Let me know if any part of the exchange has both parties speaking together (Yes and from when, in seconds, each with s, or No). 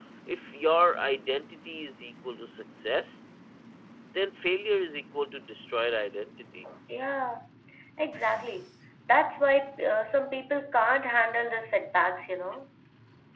No